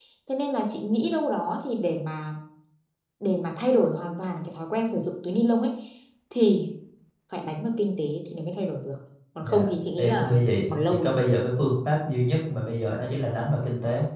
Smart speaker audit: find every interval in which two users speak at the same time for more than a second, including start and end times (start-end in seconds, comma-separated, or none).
9.4-11.2